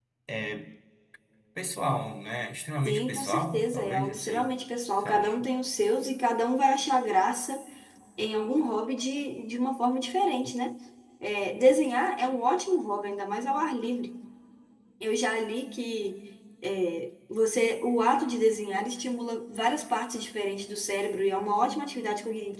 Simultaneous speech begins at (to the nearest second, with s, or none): 3 s